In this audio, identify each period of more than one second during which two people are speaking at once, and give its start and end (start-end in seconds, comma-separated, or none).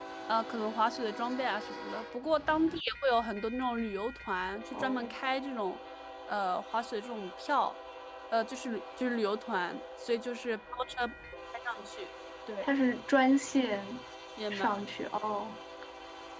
none